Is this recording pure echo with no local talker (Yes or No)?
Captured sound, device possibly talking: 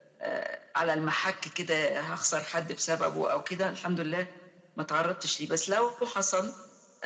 Yes